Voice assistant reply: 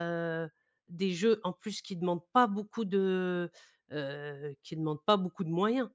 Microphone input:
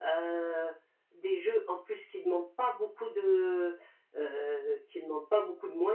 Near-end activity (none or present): none